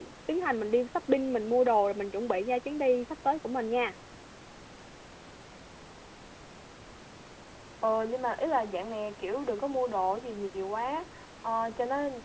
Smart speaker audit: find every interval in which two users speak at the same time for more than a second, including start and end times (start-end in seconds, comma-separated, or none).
none